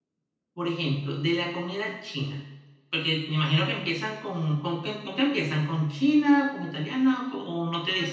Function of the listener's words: taking over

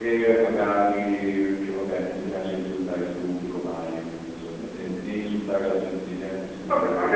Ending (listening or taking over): taking over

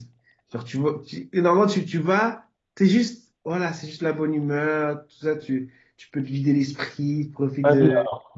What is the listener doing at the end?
taking over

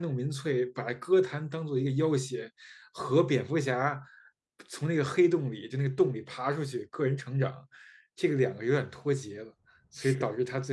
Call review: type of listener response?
listening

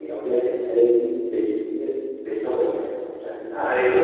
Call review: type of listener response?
taking over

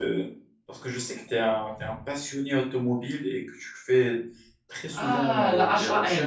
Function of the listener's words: taking over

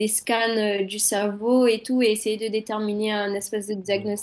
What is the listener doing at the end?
taking over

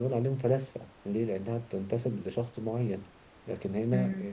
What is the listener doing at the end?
listening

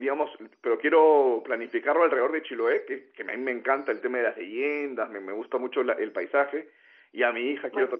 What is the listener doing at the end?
listening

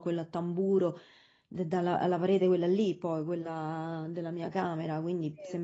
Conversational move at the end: listening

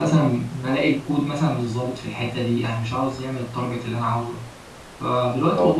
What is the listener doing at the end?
listening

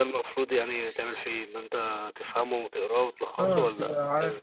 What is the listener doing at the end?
taking over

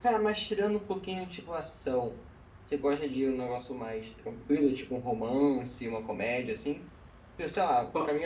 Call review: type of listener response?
listening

